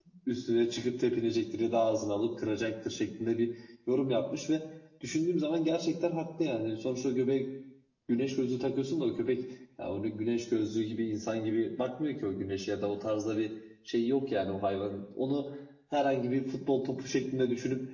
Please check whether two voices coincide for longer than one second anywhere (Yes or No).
No